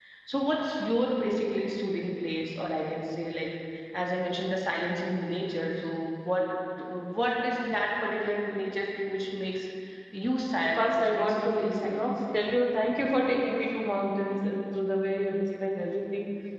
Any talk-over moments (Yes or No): Yes